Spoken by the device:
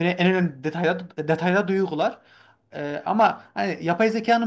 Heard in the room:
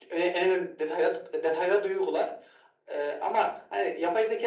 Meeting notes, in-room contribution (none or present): none